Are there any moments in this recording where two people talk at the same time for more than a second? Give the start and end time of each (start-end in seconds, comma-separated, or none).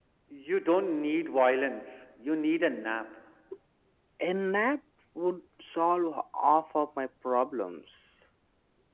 none